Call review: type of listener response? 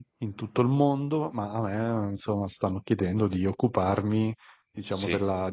listening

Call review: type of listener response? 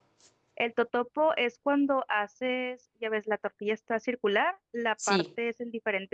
listening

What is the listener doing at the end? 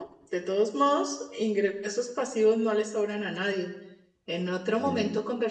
listening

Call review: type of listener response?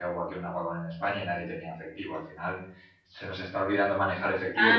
listening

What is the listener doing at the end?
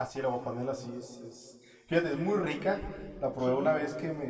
listening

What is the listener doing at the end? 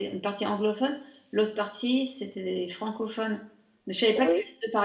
listening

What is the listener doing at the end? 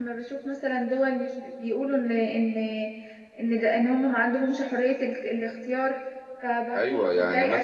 taking over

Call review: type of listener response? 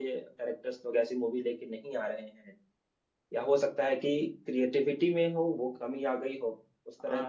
taking over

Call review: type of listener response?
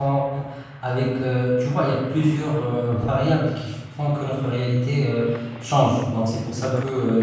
listening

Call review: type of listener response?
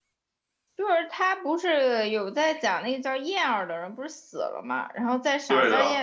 listening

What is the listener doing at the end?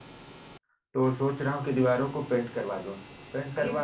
listening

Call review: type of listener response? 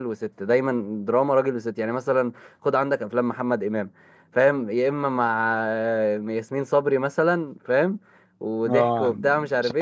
taking over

